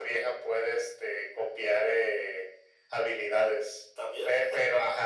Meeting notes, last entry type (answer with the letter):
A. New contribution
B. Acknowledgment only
B